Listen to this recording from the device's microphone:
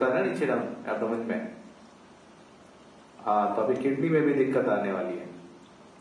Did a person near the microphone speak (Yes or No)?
No